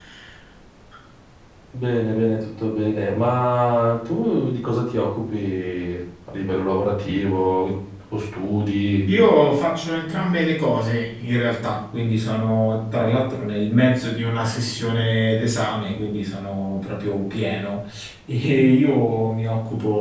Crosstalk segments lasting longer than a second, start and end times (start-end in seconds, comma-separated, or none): none